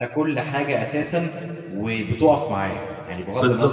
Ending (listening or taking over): taking over